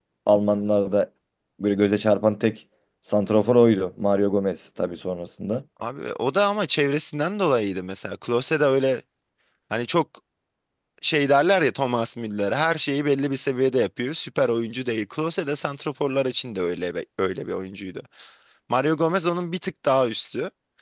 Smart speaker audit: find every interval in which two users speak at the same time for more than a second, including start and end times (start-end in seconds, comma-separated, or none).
none